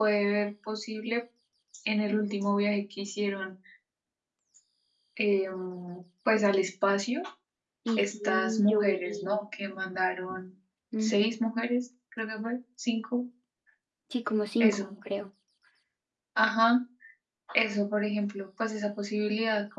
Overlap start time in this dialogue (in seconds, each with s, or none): 8.0 s